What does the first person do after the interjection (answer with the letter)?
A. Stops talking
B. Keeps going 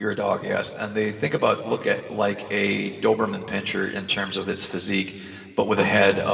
B